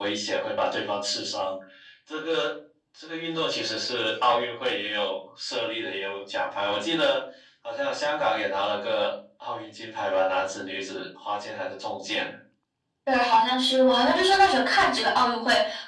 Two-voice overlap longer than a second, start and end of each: none

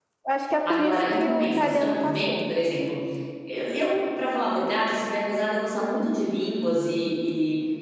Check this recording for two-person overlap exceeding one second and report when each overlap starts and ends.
0.7-2.5

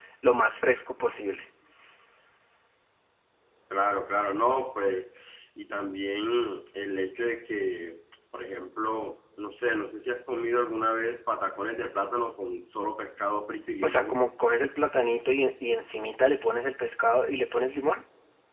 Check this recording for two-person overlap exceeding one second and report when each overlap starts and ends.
none

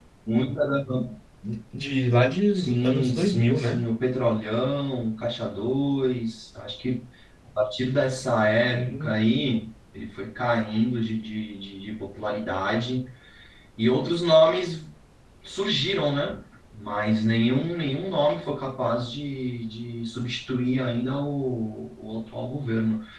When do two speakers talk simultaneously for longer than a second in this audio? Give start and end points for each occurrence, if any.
2.5-3.8

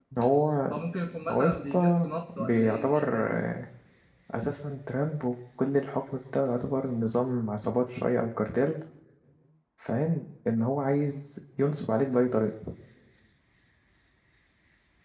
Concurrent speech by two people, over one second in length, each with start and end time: 1.3-3.5

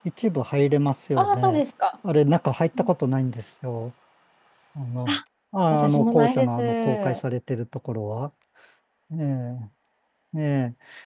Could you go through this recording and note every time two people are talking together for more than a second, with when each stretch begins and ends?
5.7-7.2

